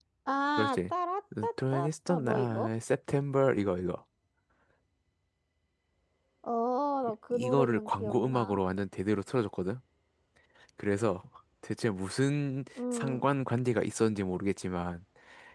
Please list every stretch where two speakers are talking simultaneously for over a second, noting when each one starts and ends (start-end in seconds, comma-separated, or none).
1.4-2.7, 7.3-8.6